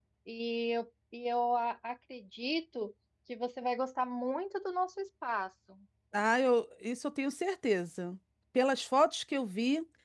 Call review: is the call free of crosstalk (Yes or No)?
Yes